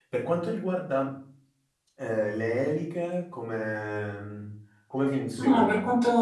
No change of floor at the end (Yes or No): No